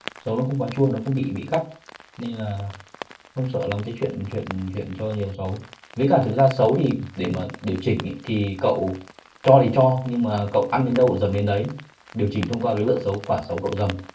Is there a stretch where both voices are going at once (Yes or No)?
No